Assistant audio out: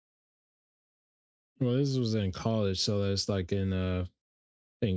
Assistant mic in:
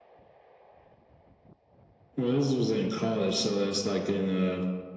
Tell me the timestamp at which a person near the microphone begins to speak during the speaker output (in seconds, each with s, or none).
none